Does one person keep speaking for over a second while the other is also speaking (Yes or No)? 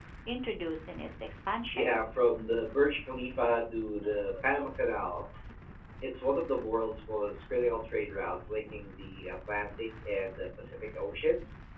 No